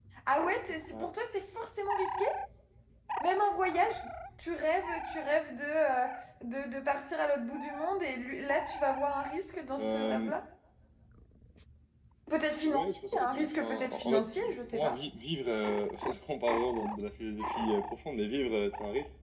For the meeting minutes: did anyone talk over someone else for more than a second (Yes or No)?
Yes